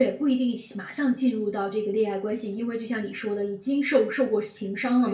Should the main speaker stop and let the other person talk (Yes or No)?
Yes